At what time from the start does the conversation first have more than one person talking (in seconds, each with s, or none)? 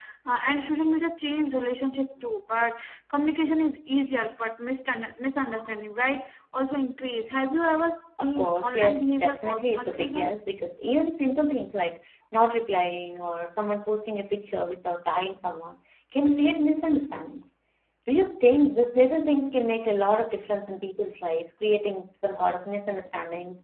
8.2 s